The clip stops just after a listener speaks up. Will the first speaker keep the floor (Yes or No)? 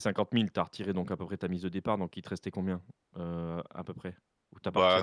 No